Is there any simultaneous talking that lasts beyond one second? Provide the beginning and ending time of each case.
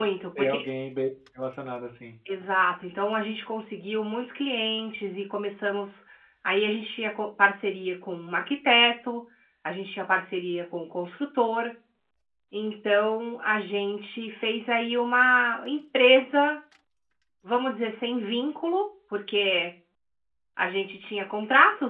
none

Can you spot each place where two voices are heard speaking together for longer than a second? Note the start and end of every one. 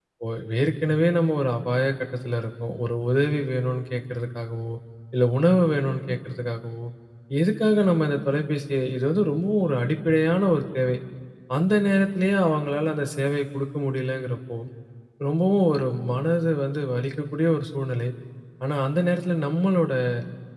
none

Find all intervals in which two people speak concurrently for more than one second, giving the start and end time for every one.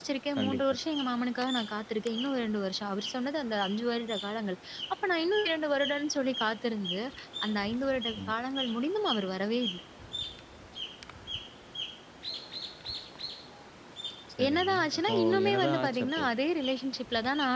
14.4-16.2

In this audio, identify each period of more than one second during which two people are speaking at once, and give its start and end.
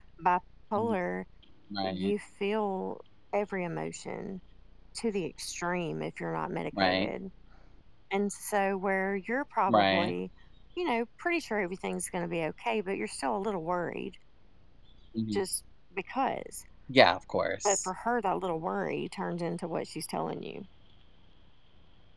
none

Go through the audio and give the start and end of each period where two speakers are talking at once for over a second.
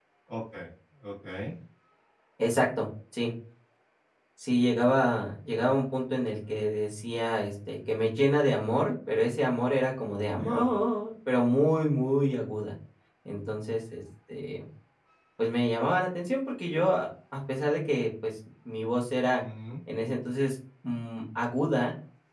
none

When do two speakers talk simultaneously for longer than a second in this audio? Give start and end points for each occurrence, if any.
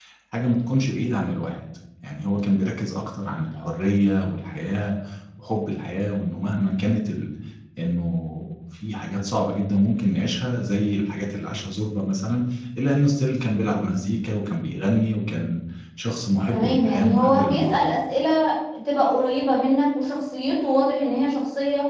16.5-17.8

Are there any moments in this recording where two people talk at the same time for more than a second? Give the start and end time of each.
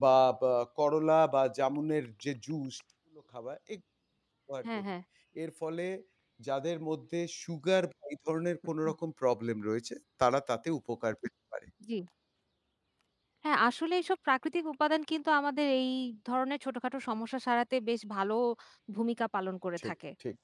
none

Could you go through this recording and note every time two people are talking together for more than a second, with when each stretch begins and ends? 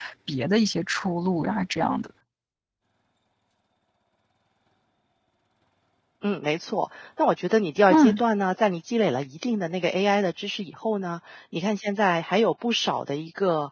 none

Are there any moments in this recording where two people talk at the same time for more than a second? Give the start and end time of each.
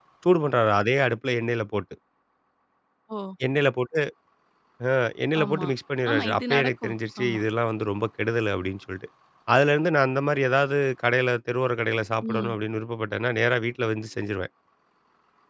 6.1-7.4

